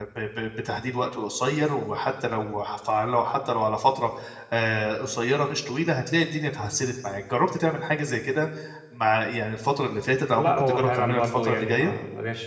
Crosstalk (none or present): present